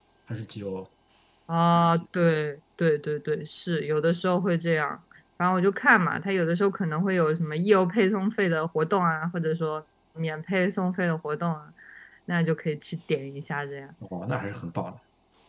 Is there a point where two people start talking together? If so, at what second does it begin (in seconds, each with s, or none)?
none